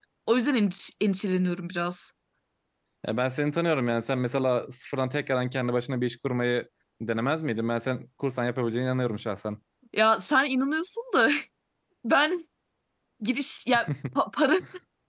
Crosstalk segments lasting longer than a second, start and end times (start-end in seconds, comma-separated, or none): none